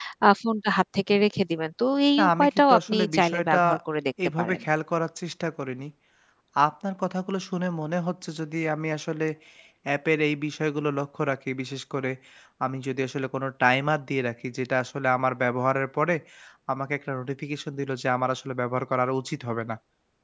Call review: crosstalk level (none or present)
present